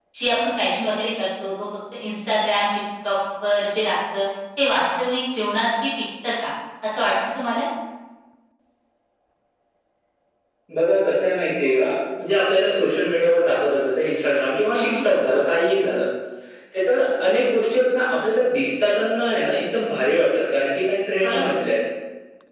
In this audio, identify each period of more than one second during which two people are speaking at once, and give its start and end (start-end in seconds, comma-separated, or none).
none